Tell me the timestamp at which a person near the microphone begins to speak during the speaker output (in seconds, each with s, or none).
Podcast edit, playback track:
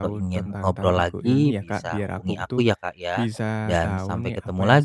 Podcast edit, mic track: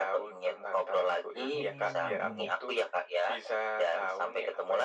1.5 s